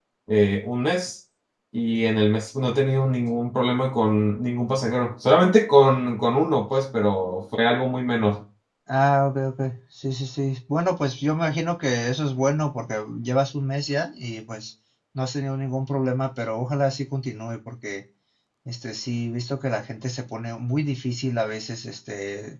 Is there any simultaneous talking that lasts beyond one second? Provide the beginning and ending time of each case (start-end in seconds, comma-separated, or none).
none